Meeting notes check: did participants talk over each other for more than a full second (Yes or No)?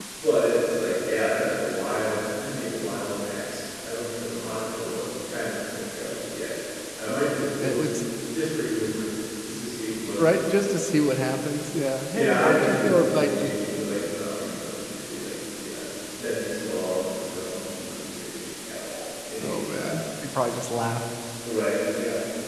Yes